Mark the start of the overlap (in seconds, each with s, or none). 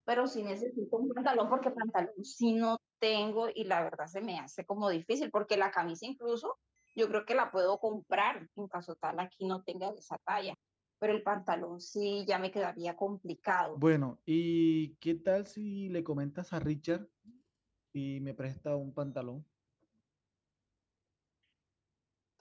none